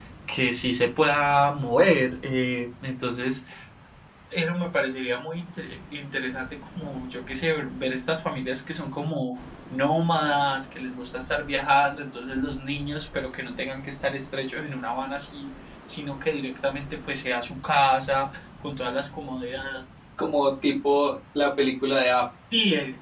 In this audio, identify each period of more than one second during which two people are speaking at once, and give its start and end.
none

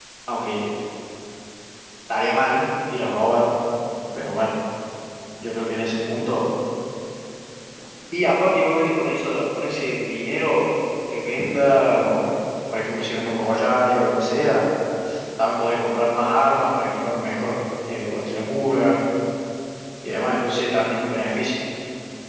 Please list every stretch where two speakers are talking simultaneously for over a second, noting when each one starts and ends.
none

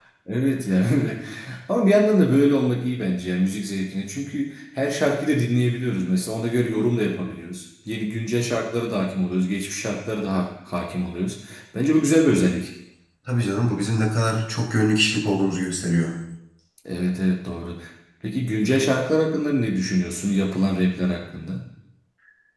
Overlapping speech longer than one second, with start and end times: none

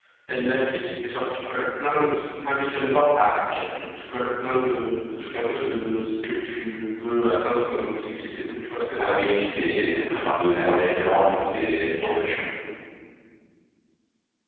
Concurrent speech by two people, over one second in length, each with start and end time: none

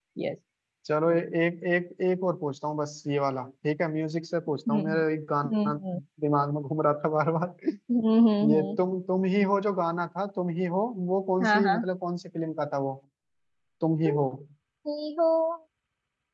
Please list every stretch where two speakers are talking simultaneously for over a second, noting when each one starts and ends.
none

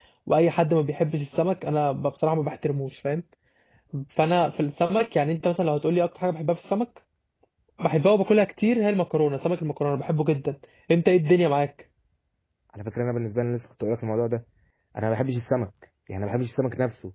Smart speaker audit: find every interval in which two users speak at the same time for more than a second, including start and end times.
none

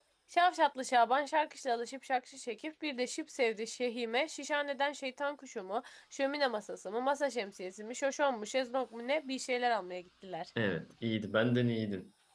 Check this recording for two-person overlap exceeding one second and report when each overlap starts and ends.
none

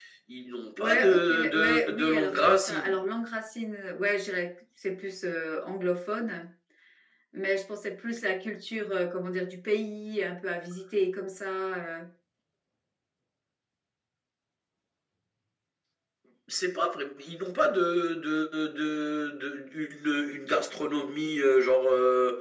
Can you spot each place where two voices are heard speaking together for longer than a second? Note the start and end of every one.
0.8-3.0

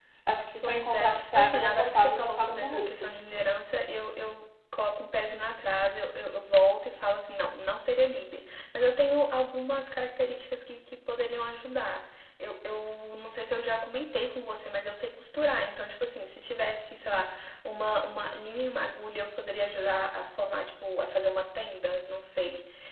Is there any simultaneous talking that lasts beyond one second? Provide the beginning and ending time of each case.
0.6-3.1

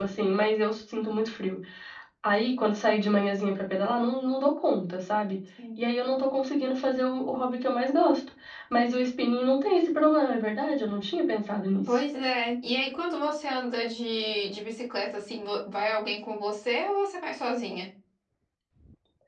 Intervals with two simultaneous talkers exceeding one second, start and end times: none

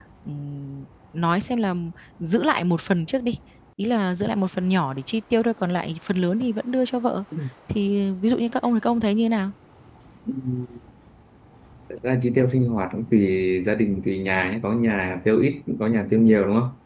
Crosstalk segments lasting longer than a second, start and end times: none

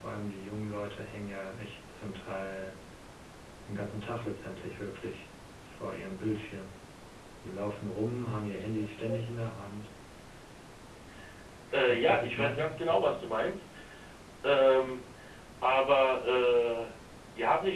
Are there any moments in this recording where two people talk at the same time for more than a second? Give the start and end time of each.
11.9-13.3

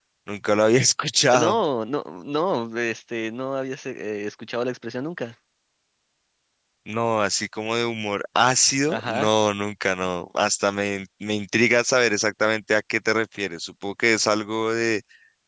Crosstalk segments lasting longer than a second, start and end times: none

